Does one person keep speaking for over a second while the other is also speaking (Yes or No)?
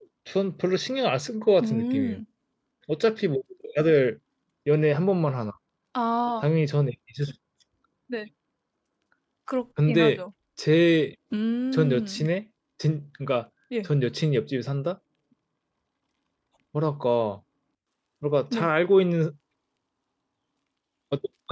No